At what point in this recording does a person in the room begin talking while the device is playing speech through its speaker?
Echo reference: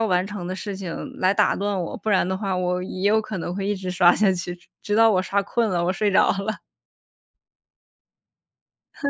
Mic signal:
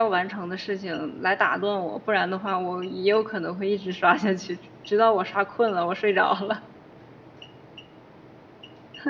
none

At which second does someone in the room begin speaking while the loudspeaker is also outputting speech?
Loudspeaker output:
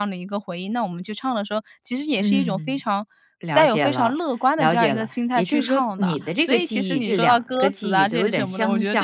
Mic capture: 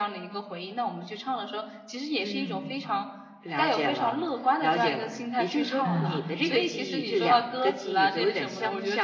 5.8 s

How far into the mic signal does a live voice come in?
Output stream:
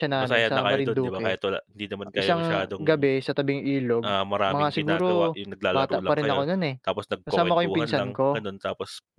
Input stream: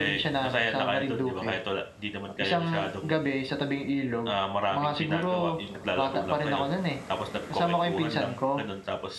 none

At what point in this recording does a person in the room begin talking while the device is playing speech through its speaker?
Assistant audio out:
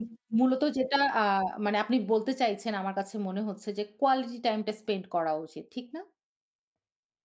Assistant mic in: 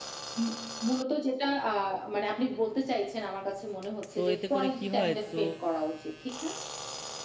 4.2 s

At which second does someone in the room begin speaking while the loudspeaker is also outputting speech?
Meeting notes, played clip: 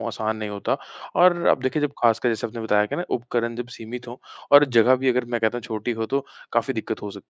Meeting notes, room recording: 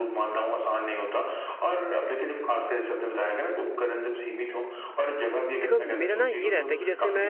5.6 s

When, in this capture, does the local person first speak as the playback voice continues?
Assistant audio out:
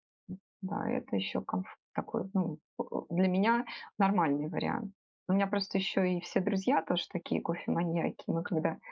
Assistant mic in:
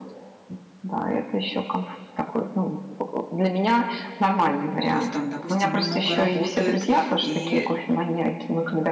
4.9 s

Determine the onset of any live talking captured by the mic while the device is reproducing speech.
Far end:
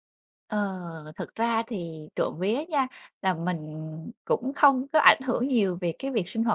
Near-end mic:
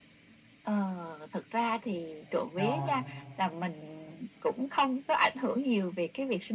2.6 s

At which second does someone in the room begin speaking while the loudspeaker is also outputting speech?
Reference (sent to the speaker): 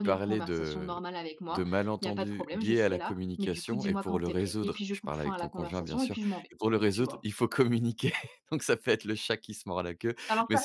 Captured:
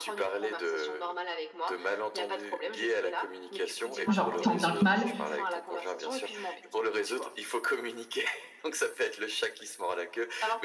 4.1 s

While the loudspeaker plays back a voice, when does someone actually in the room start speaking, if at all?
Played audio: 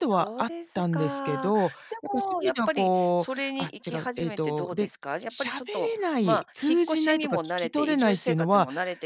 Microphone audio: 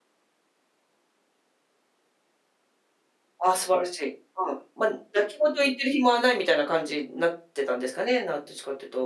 3.4 s

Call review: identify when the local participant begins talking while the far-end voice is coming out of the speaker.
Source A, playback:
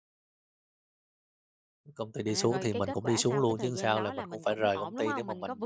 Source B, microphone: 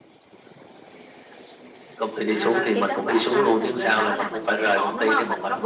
none

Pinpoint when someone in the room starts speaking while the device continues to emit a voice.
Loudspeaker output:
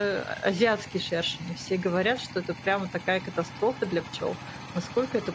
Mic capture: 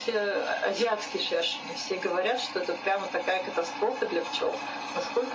none

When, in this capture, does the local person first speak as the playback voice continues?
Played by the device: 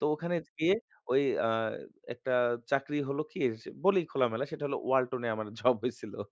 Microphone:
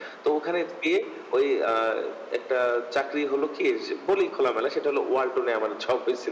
none

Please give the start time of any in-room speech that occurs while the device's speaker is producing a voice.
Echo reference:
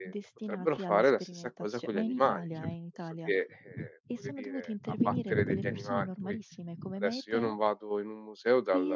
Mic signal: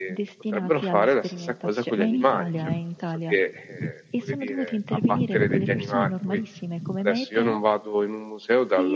none

